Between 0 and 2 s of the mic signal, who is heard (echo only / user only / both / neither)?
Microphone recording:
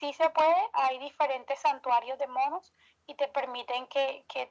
echo only